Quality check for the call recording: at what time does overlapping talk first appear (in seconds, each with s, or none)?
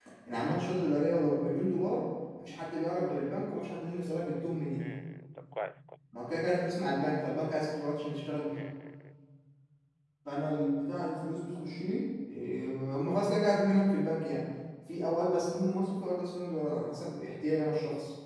none